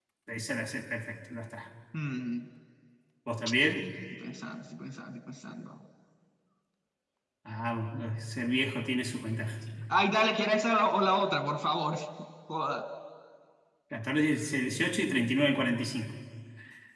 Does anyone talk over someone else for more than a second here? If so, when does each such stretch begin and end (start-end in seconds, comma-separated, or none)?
none